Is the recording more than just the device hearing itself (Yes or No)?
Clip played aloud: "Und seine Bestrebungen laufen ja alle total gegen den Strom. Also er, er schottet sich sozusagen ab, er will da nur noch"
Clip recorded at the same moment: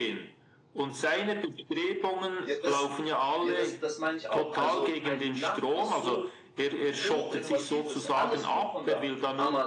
Yes